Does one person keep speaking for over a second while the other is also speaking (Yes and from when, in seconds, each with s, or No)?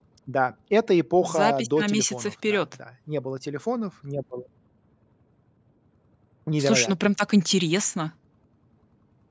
Yes, from 1.2 s